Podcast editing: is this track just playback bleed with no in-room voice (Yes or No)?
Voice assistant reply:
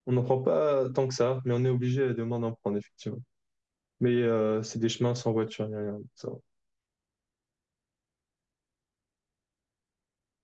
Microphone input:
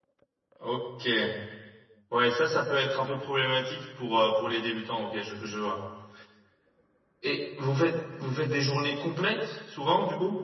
No